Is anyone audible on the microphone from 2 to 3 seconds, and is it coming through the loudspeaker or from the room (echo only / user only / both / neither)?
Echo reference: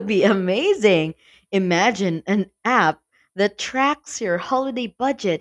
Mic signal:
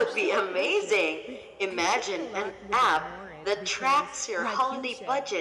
both